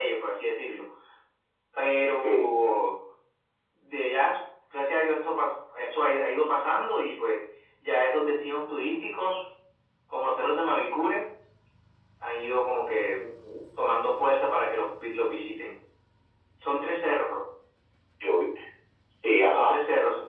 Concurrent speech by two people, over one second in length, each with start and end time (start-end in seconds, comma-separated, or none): none